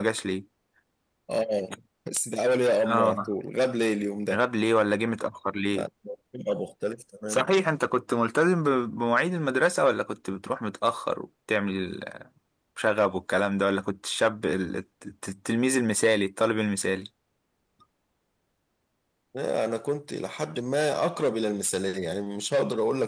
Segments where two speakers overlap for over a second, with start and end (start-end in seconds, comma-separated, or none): none